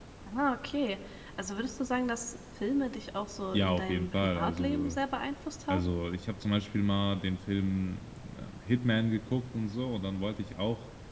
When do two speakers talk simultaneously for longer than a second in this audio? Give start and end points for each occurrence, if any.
3.5-5.0

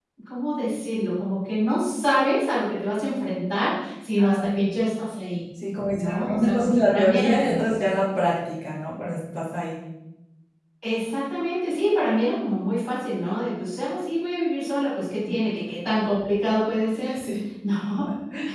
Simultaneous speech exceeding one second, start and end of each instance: 5.9-7.7

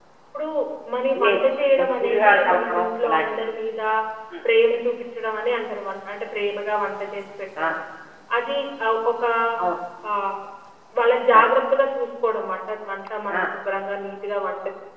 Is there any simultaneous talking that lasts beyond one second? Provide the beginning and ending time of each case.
1.2-3.4

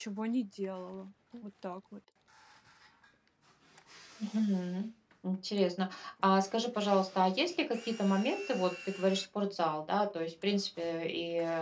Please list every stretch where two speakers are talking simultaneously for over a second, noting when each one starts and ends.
none

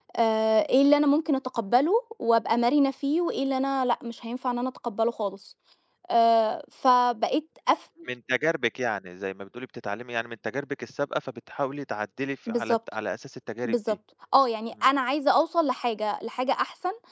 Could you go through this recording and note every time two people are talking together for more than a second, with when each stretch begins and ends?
none

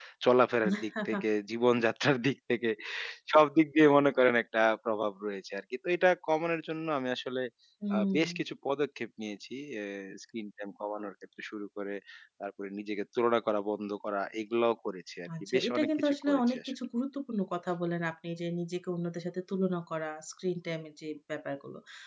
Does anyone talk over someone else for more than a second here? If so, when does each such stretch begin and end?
15.5-16.7

